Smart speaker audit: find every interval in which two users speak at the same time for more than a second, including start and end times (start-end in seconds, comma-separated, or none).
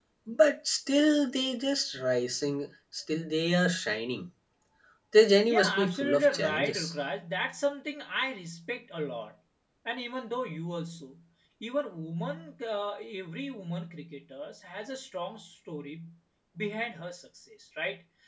5.4-6.8